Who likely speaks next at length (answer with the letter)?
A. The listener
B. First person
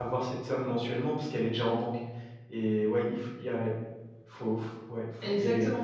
A